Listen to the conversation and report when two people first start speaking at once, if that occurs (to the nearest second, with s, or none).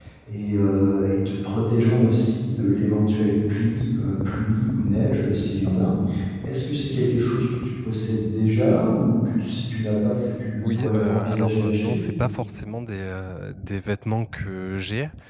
11 s